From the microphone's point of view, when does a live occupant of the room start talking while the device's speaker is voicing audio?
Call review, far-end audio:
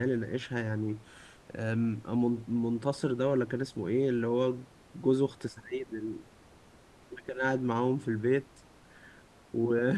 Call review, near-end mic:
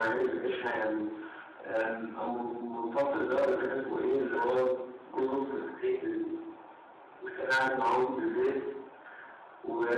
none

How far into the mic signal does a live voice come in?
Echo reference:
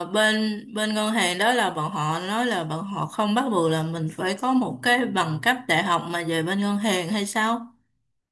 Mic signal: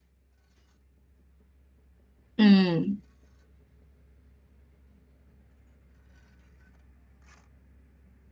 2.4 s

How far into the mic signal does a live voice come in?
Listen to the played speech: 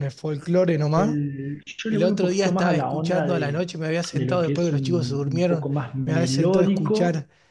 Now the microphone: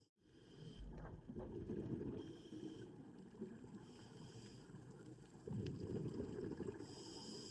none

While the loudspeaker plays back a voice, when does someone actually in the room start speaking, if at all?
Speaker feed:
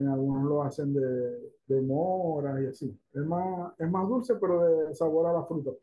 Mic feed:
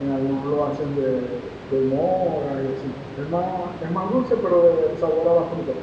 none

